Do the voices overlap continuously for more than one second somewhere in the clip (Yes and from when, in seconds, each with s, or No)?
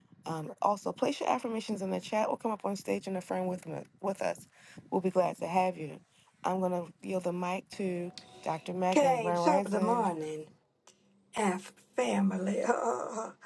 Yes, from 8.9 s